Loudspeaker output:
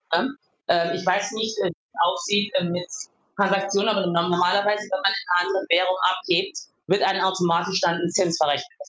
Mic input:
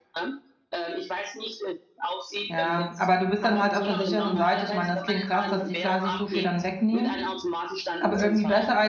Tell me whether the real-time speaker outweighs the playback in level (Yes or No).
Yes